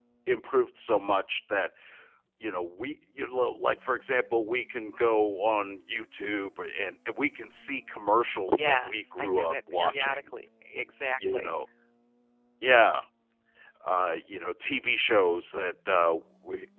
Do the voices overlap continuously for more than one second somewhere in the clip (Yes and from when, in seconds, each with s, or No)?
Yes, from 8.3 s